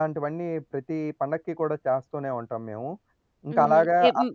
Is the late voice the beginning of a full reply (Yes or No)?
Yes